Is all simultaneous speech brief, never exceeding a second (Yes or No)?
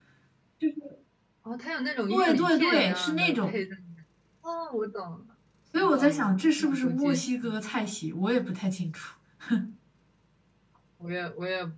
No